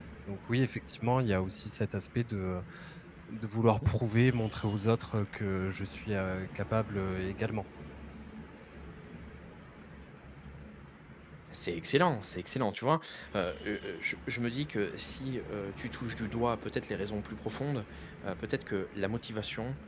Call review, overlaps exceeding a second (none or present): none